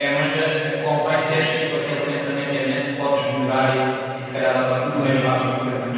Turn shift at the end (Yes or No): No